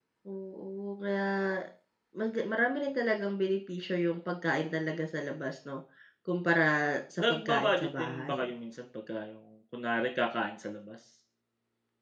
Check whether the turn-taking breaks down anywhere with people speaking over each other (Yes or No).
Yes